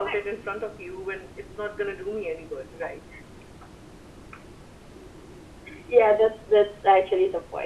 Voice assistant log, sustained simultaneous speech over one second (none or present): none